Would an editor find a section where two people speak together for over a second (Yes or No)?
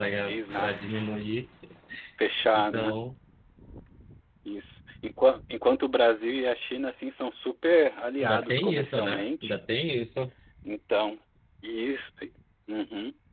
Yes